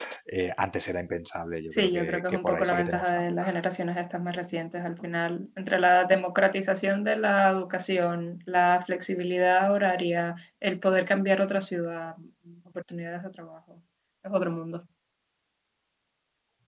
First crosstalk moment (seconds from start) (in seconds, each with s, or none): 1.7 s